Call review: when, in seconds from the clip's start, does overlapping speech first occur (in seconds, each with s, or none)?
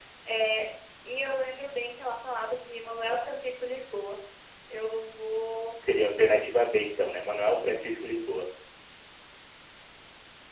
none